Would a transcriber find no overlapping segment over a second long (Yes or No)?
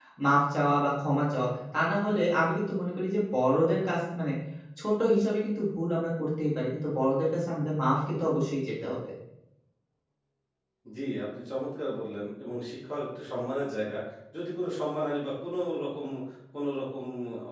Yes